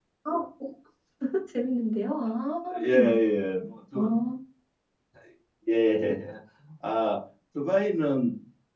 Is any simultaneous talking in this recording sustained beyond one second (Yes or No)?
No